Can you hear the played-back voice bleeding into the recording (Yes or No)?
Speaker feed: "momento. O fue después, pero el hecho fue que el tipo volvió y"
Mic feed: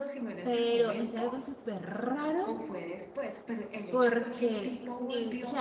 Yes